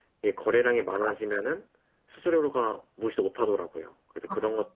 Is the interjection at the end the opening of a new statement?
No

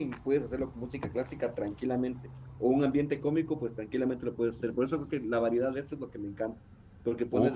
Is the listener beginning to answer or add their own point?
No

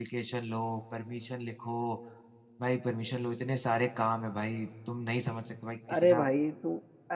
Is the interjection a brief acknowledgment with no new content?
No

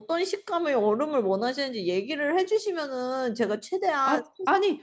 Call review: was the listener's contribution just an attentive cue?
No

